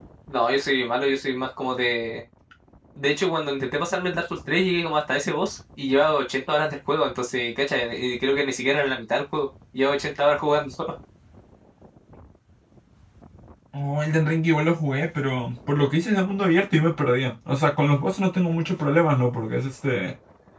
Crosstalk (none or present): none